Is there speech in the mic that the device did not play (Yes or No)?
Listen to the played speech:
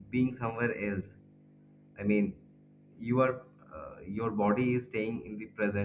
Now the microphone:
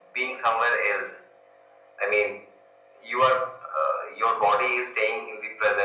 No